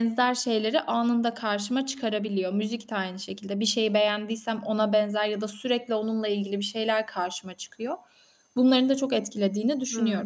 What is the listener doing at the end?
taking over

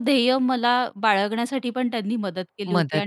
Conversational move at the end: listening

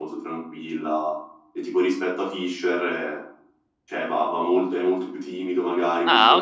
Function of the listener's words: taking over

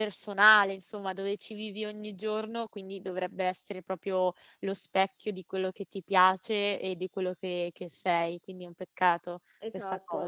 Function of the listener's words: taking over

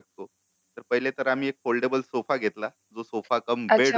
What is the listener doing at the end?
taking over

